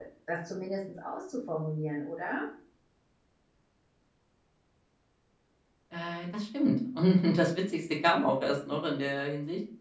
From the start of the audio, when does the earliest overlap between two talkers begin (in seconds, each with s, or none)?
none